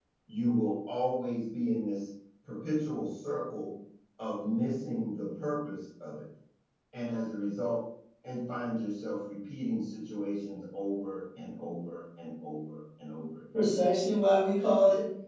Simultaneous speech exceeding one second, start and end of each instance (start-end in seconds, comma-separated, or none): none